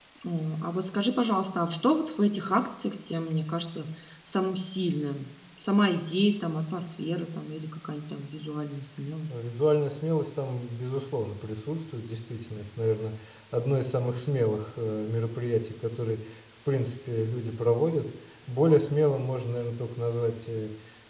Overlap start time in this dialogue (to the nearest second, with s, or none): none